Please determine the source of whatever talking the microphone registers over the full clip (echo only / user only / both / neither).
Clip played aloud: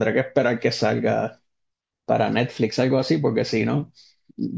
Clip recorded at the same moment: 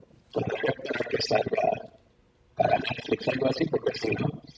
echo only